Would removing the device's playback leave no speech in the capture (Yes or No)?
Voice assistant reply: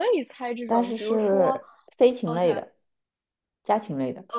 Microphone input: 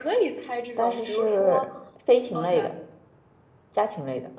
Yes